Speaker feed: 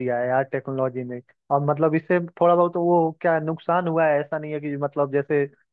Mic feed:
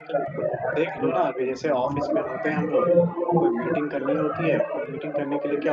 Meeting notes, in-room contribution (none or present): present